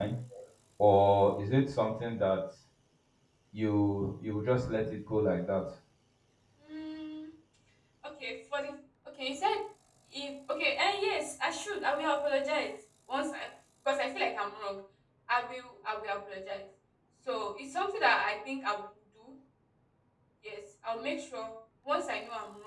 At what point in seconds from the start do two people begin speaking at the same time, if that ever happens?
none

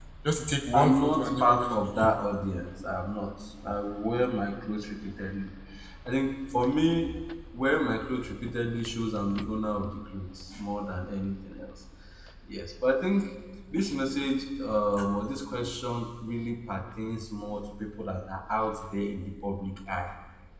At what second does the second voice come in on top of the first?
0.7 s

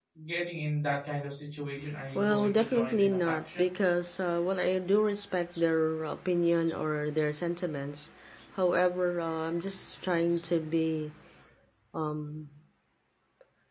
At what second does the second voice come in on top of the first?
2.1 s

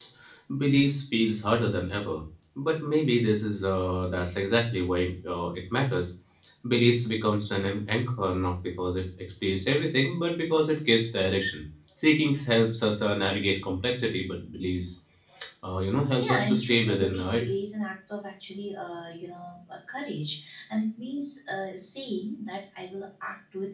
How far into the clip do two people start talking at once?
16.2 s

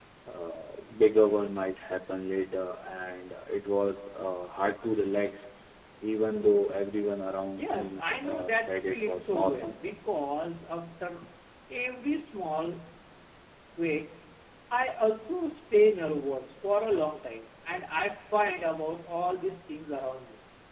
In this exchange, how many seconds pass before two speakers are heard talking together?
7.6 s

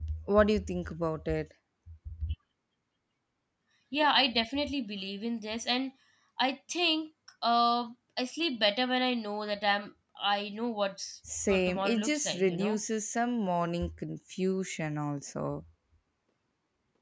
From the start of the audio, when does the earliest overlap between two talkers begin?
11.2 s

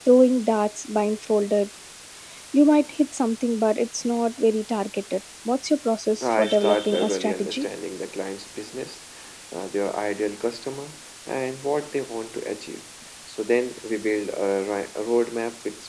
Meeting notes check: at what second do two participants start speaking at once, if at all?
6.2 s

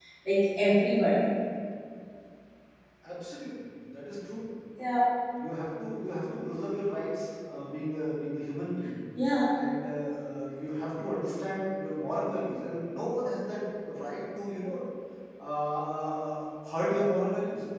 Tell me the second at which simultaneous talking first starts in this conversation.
none

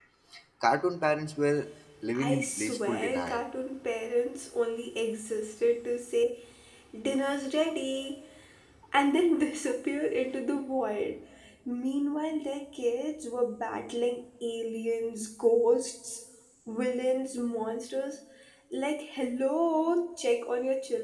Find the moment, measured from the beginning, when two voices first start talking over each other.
2.1 s

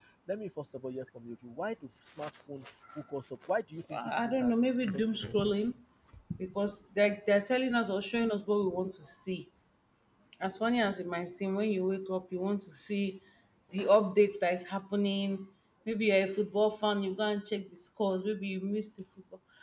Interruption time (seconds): 3.9 s

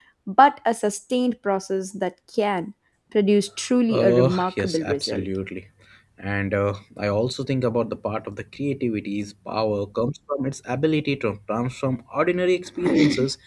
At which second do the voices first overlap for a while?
3.9 s

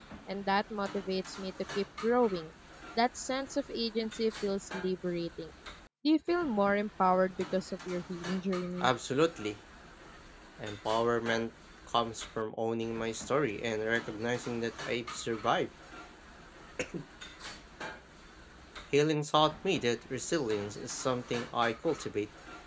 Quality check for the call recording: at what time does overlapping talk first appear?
none

